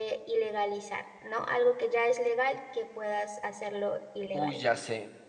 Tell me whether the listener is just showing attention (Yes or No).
No